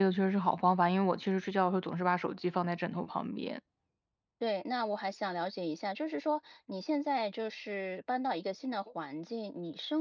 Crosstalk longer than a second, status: none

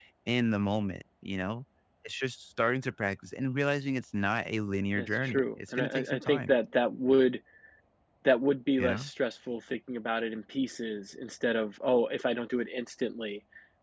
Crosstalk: present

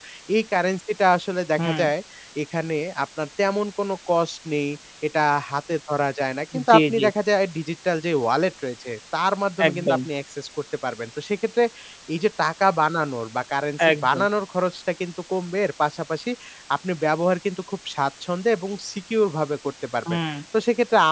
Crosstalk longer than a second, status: none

